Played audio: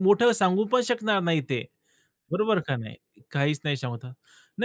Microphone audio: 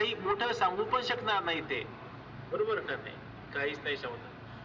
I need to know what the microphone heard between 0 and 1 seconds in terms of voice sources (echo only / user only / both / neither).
echo only